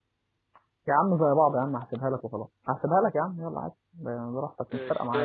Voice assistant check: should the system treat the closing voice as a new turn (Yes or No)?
Yes